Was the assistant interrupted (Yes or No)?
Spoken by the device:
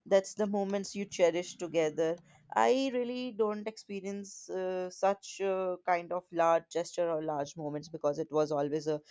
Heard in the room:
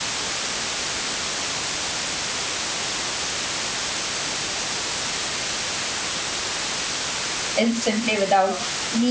Yes